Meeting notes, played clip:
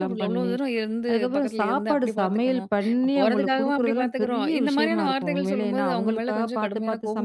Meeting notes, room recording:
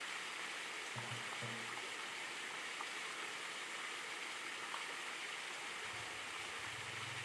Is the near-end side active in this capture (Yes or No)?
No